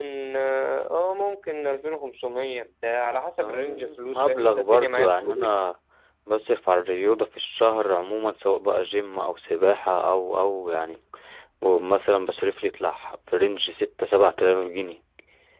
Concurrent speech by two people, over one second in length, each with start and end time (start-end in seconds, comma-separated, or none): 3.4-5.5